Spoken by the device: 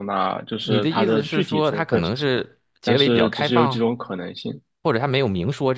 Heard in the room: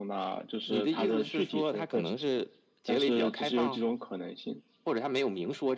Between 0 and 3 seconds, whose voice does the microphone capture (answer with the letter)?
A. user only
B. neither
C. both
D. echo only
D